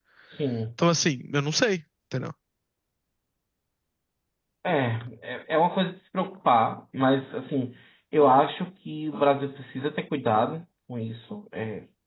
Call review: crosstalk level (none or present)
none